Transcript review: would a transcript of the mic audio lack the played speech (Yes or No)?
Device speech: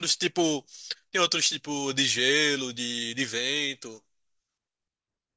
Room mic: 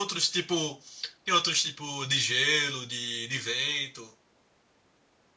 No